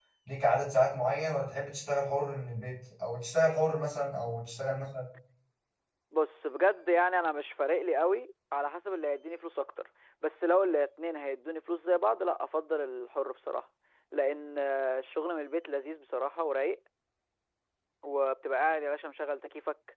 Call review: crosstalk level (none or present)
none